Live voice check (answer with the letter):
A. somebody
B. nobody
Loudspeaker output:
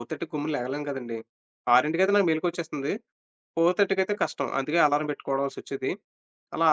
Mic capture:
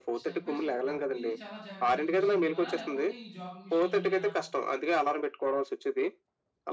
A